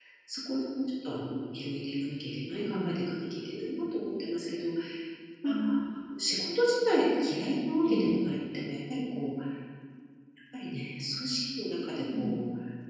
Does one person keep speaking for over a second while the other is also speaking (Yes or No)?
No